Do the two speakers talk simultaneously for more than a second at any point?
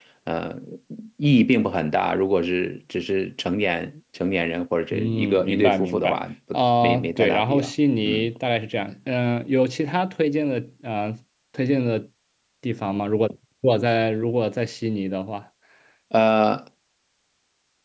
Yes, from 4.9 s

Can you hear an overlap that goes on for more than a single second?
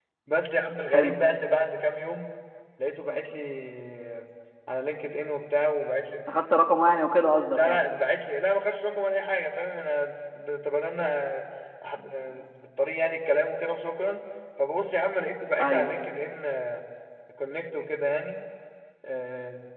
No

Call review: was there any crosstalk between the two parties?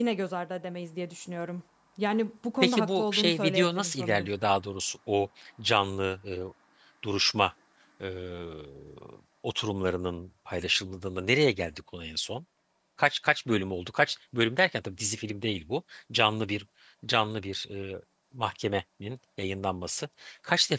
Yes, from 2.6 s

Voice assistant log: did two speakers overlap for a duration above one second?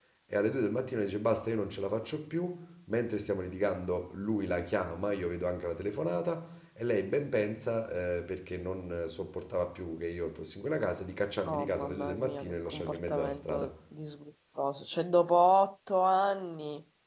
Yes, from 11.5 s

